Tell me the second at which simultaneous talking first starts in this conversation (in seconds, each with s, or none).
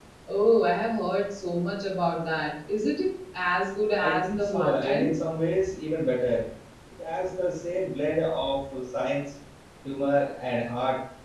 4.0 s